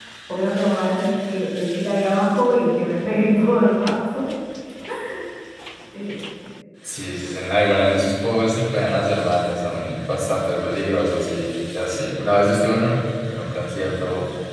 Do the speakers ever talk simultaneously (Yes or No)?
No